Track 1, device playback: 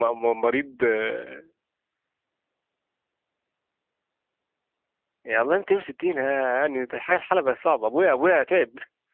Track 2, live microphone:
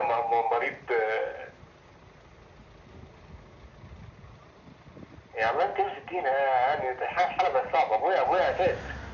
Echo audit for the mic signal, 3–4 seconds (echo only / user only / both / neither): neither